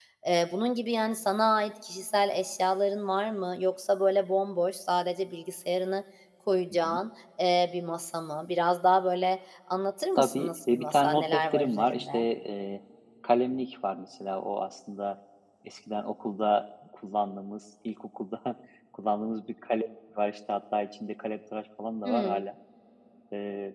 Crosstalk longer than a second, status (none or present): present